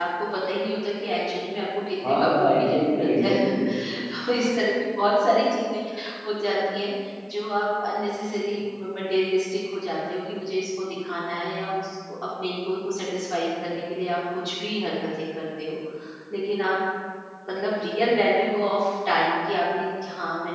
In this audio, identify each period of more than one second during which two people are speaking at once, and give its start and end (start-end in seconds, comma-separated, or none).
2.0-3.3